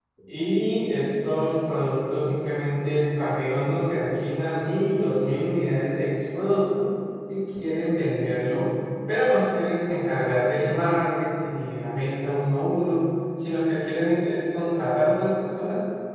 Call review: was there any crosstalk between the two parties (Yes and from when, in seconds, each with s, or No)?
No